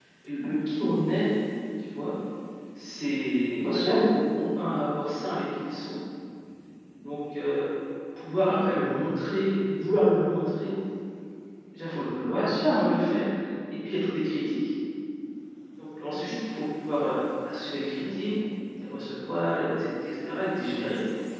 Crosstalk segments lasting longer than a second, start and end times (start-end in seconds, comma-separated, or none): none